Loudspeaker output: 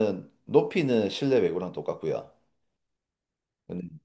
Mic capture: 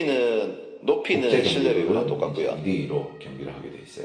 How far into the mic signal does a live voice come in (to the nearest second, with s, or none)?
1 s